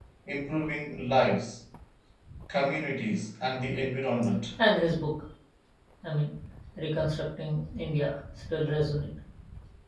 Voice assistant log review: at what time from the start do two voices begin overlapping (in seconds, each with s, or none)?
none